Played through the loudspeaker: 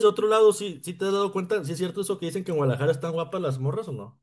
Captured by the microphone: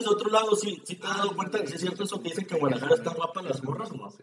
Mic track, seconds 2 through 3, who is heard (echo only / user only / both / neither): both